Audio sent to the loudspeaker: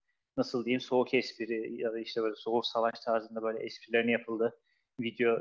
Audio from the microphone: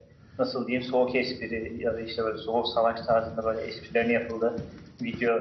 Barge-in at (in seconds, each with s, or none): none